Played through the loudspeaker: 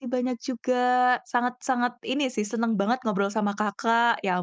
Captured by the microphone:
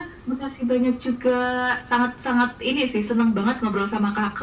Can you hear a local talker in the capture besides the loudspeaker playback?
No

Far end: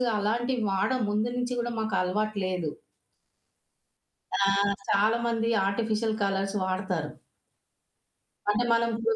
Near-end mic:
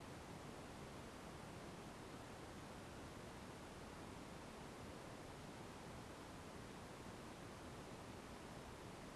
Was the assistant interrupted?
No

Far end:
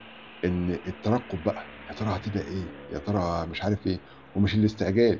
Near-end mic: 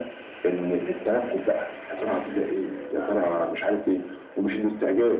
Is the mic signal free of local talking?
No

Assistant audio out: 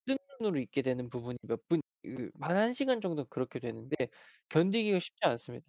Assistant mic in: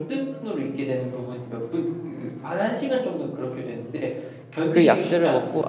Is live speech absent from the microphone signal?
No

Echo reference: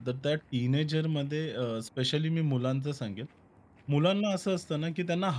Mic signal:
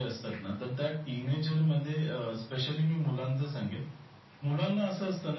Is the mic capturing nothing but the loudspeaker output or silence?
Yes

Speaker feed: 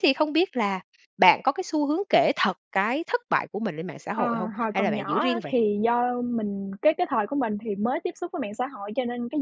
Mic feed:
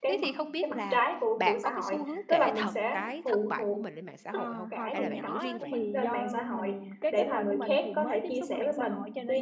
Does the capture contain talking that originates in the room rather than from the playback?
Yes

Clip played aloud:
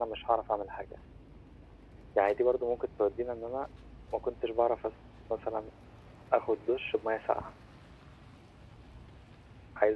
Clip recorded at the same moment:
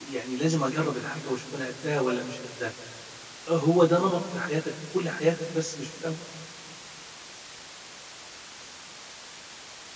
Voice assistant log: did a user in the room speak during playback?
Yes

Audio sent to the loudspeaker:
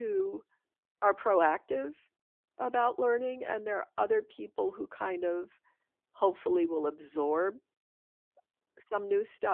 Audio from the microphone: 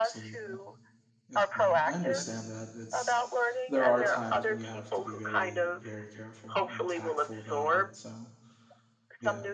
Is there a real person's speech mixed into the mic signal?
Yes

